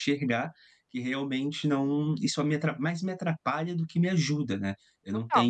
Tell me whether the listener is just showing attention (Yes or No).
Yes